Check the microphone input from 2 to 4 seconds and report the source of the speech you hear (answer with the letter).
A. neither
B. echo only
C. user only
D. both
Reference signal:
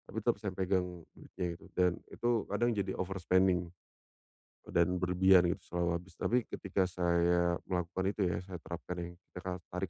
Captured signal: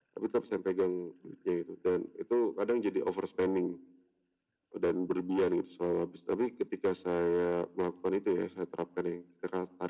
B